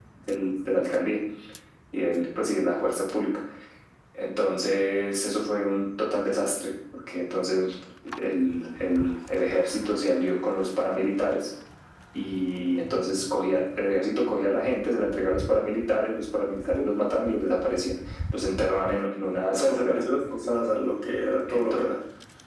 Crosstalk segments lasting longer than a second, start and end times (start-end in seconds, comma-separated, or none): none